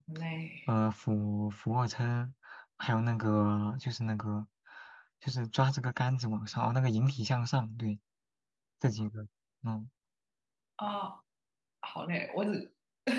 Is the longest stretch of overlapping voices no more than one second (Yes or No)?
Yes